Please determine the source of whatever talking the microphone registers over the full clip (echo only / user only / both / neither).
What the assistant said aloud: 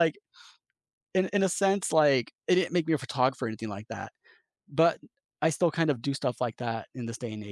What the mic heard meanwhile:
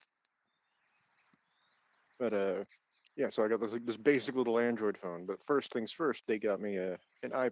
user only